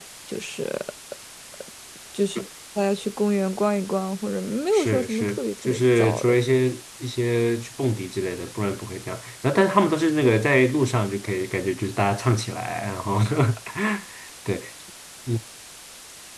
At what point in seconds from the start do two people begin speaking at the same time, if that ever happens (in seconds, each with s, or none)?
4.7 s